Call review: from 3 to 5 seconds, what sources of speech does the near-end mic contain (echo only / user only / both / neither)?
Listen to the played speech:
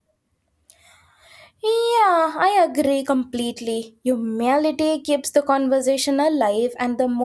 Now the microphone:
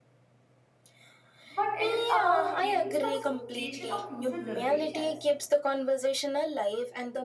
both